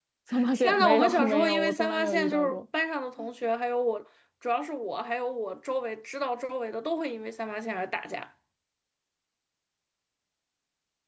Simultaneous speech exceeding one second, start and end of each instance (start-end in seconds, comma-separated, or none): 0.5-2.6